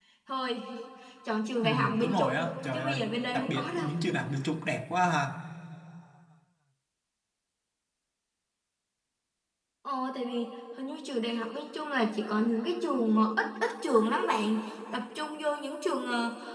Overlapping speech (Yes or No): Yes